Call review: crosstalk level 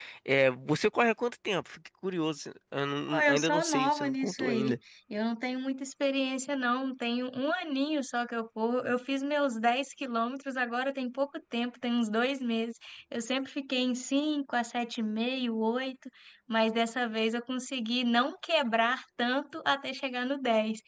present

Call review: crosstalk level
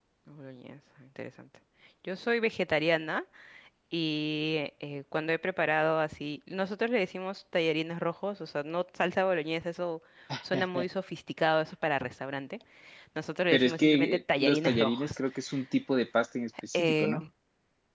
present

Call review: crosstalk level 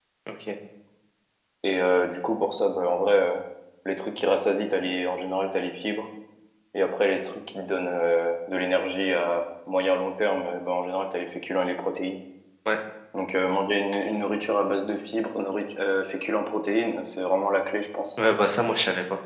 none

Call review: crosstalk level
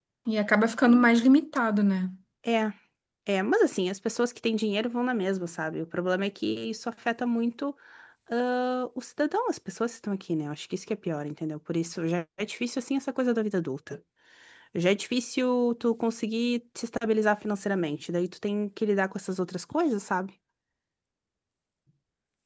none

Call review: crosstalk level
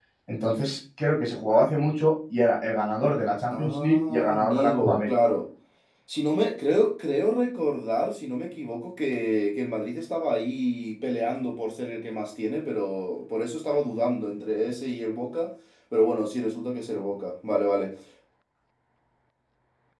present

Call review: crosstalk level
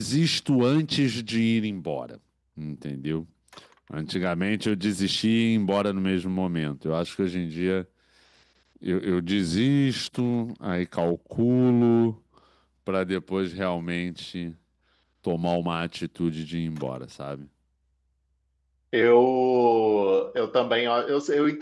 none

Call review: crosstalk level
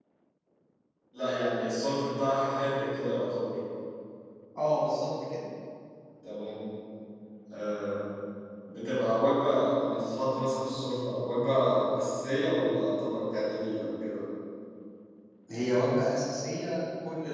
none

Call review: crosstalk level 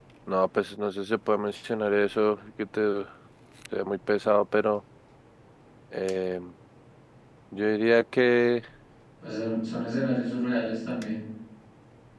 none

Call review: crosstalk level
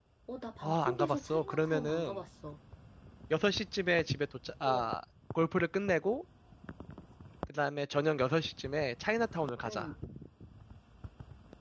present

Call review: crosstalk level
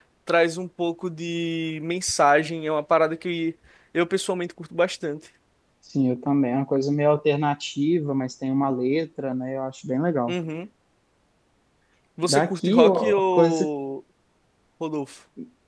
present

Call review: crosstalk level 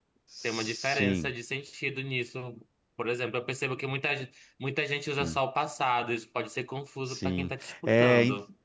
present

